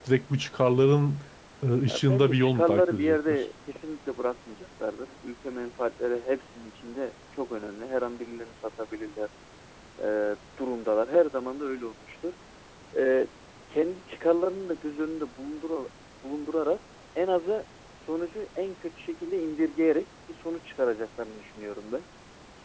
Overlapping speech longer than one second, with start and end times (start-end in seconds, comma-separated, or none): 1.9-3.4